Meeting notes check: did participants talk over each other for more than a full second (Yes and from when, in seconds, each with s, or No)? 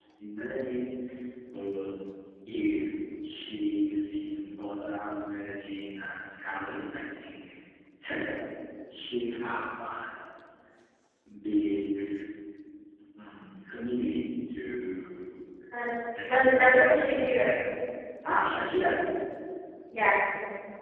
Yes, from 16.2 s